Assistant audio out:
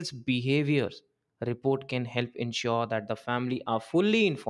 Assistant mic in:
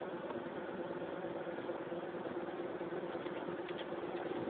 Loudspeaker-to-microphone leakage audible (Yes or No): No